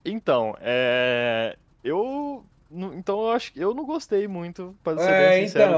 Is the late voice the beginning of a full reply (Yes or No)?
Yes